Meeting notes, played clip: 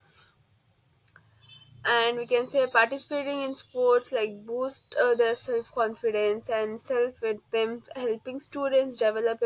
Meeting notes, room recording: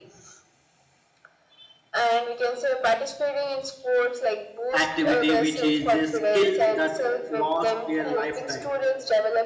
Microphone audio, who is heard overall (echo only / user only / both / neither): both